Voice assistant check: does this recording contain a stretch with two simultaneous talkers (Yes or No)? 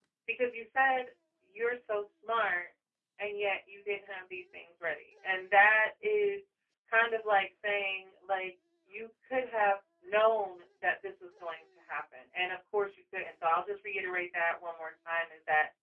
No